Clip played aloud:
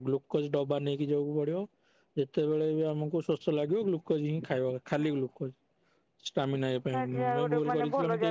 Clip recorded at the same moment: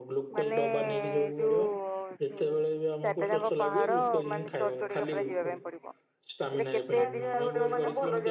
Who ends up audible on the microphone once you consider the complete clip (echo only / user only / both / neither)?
both